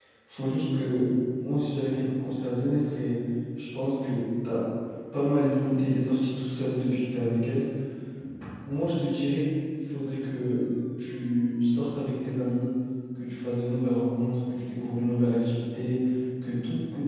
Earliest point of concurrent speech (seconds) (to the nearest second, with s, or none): none